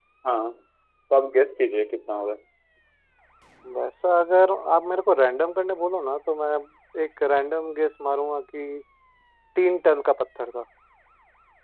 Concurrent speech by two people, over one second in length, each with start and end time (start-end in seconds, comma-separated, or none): none